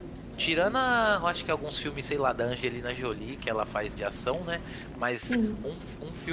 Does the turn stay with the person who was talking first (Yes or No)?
Yes